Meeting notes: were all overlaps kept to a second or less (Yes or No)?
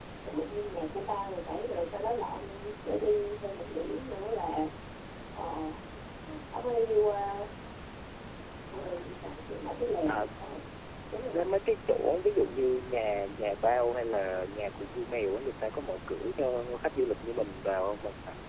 Yes